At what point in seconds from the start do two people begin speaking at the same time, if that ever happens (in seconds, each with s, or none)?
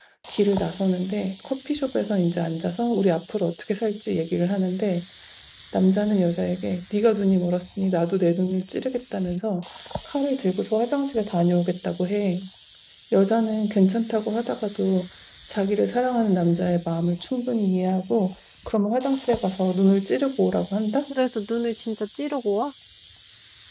none